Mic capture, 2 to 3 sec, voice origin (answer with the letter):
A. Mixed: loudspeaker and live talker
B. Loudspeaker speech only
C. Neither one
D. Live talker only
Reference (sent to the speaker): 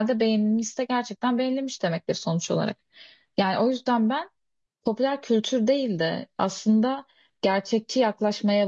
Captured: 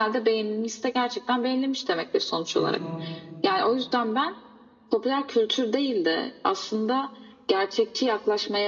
A